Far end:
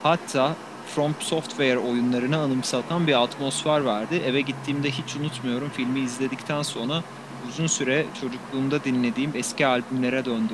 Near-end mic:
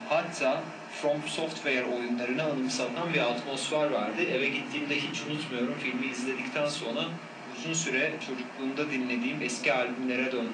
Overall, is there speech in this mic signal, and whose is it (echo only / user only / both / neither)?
echo only